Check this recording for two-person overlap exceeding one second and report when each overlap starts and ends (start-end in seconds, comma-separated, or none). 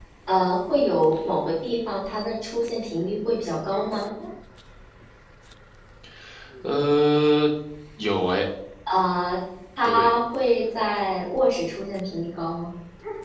none